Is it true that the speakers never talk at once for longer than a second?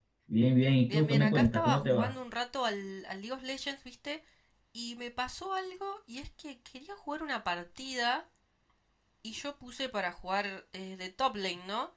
No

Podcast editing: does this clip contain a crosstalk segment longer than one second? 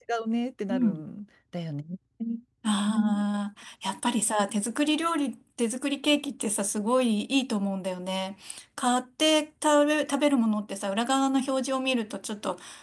No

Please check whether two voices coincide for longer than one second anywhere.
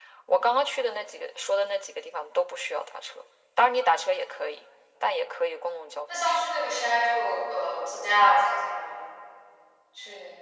No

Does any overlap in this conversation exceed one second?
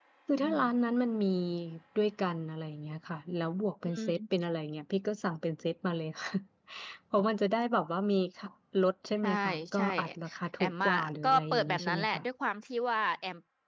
Yes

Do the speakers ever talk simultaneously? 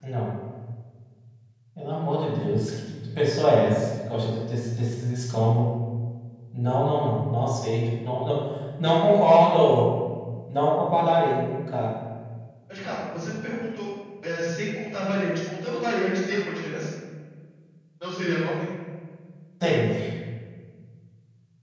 No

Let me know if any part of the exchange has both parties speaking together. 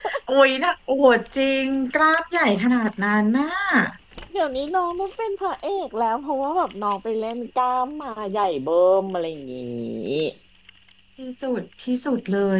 No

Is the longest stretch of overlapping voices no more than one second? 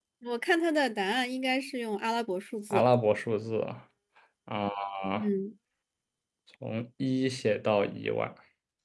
Yes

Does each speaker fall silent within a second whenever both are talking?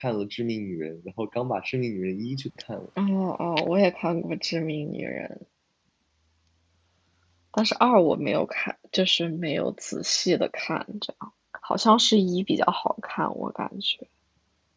Yes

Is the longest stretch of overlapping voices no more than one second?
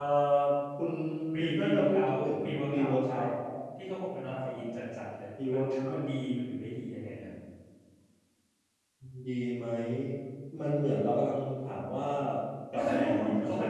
No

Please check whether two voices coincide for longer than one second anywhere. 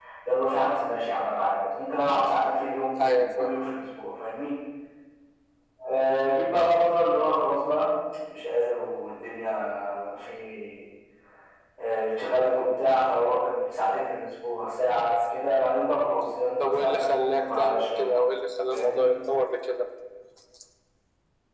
Yes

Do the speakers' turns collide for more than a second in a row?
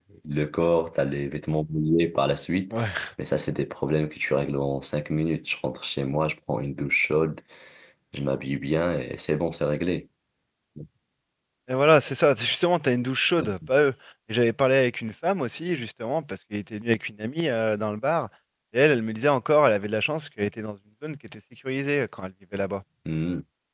No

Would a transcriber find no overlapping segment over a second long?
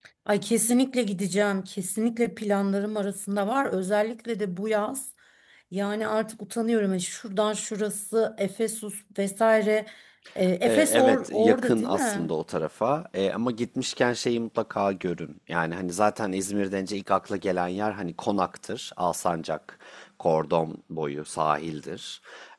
No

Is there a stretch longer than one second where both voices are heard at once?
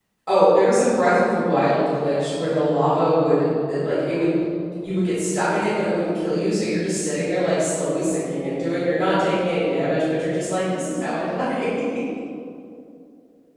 No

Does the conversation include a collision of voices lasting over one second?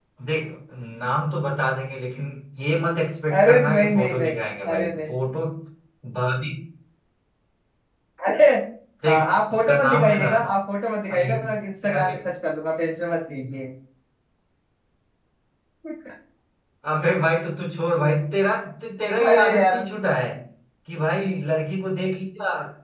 Yes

